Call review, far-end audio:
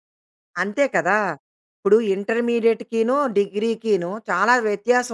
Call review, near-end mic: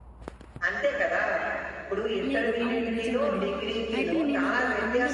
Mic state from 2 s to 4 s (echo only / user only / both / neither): both